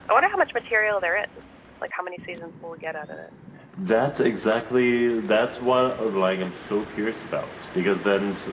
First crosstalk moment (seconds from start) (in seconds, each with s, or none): none